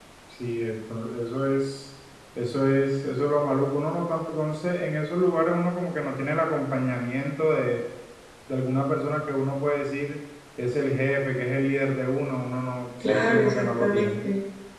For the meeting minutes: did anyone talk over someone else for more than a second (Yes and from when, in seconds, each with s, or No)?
Yes, from 13.0 s